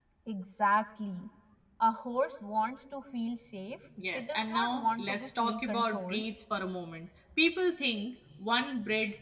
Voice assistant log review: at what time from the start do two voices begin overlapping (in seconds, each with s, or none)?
4.1 s